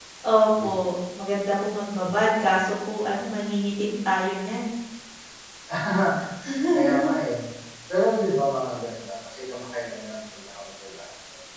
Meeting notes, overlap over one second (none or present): none